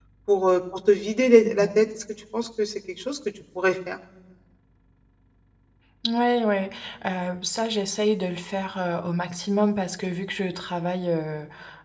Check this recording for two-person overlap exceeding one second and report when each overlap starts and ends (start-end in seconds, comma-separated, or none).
none